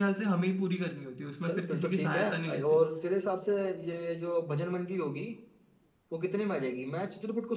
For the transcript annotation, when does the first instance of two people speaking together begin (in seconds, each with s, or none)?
1.4 s